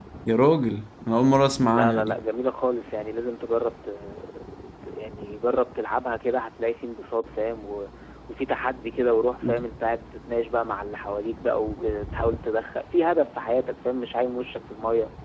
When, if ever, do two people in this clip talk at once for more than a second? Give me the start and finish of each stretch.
none

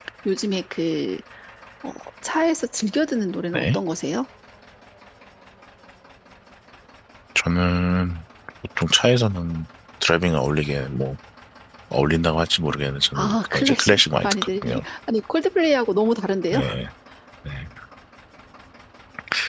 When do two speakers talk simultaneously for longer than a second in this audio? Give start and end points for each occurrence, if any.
13.2-14.8

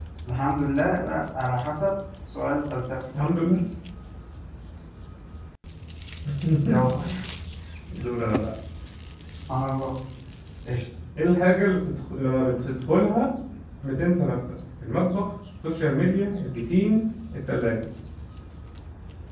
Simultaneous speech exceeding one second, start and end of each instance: none

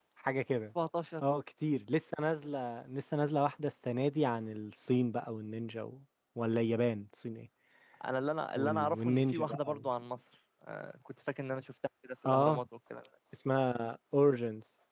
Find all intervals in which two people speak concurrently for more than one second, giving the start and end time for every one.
8.6-9.9

